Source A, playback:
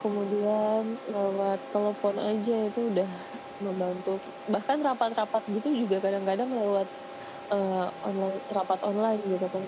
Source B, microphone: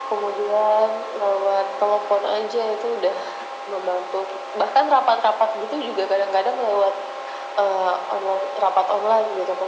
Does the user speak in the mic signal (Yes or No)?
No